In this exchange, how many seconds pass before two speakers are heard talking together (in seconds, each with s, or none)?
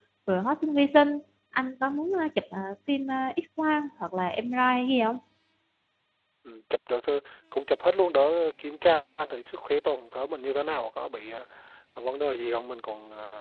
none